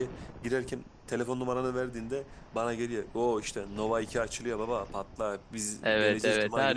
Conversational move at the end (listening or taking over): taking over